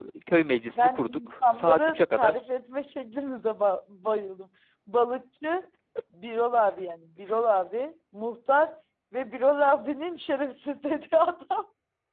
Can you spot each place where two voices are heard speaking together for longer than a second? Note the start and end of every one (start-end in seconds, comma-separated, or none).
0.7-2.4